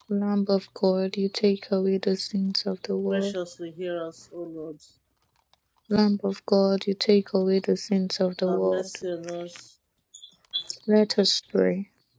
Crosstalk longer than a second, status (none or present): none